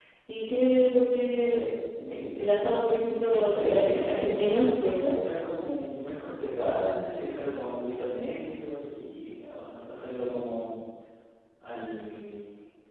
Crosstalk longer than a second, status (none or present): present